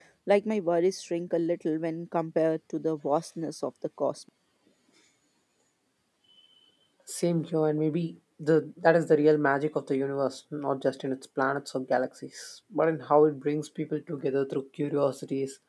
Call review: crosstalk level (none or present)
none